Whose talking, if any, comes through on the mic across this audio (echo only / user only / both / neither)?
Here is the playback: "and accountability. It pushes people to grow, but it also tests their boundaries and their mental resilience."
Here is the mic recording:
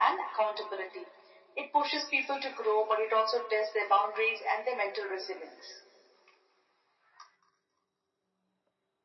echo only